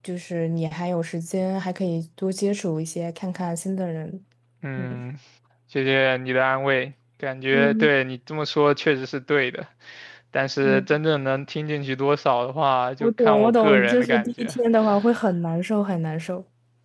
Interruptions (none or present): present